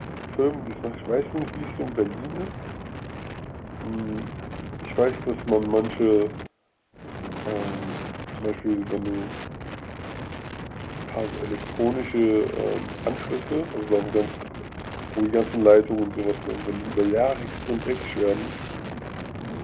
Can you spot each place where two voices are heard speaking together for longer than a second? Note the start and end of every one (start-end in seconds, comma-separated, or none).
none